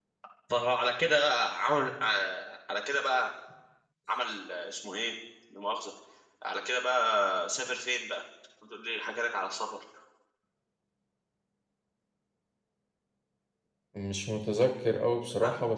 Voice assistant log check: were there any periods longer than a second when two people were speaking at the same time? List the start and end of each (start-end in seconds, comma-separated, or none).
none